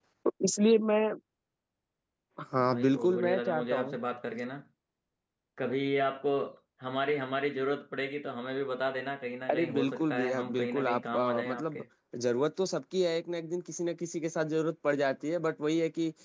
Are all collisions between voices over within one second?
No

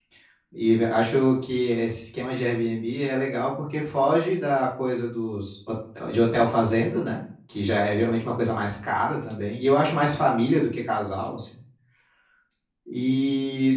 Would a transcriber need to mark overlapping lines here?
No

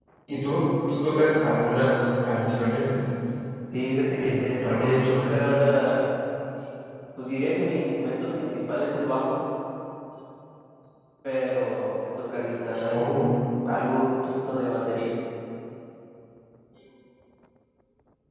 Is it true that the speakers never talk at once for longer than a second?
No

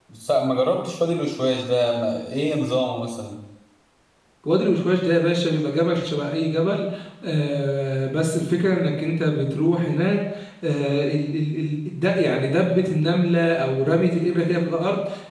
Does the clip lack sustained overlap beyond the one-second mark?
Yes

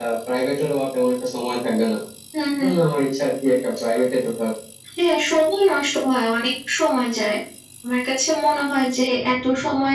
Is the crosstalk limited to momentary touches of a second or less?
Yes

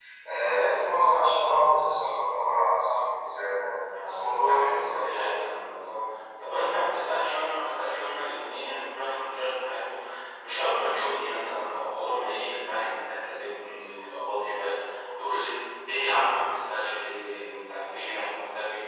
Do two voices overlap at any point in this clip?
Yes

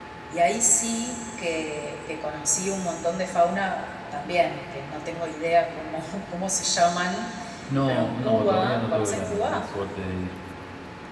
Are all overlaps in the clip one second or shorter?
No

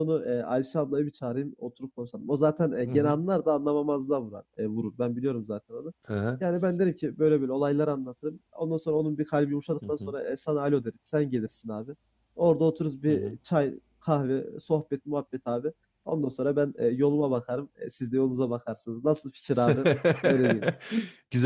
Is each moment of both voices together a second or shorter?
Yes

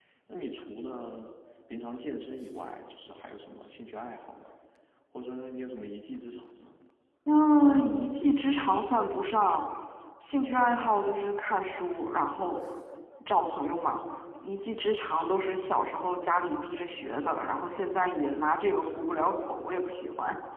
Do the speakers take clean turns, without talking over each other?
Yes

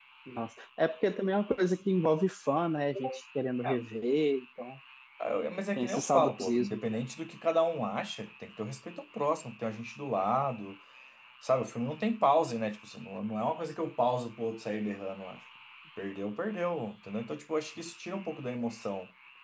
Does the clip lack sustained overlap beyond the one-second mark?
No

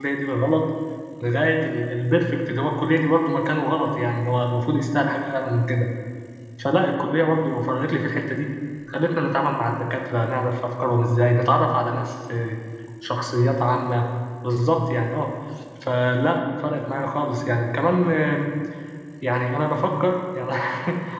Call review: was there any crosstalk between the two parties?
No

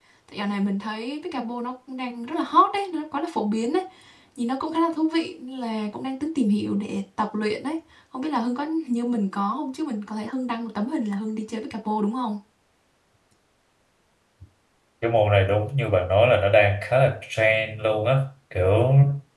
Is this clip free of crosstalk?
Yes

